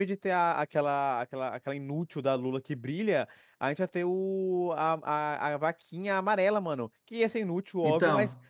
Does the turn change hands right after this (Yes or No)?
No